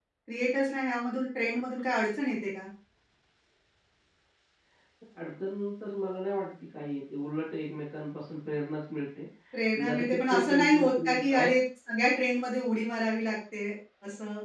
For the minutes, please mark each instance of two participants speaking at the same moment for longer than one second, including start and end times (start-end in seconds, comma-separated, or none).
9.8-11.5